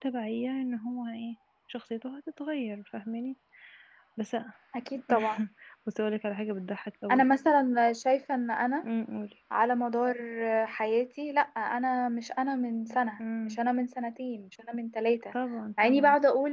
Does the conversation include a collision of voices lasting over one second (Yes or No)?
No